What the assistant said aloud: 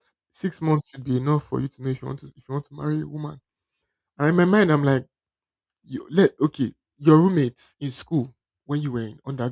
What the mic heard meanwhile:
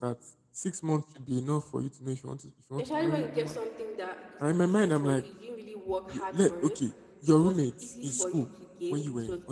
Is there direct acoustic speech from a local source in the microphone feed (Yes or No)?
Yes